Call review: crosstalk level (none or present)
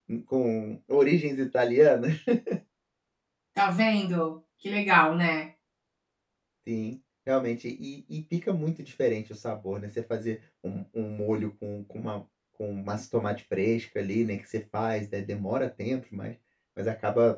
none